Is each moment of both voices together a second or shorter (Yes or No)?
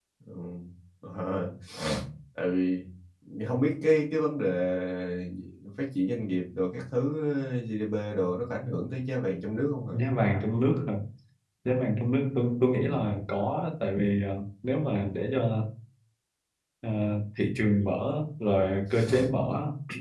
Yes